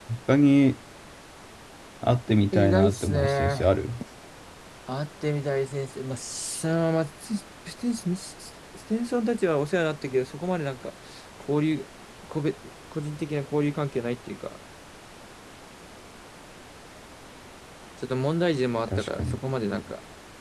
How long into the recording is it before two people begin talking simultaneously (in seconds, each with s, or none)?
2.5 s